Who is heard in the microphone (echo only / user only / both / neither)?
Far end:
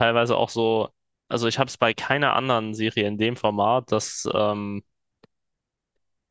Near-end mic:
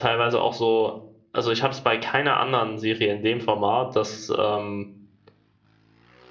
echo only